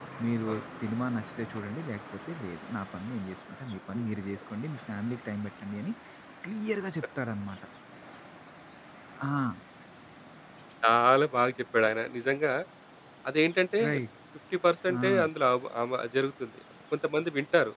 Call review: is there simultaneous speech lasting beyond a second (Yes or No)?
No